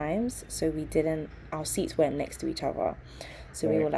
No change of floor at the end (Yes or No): Yes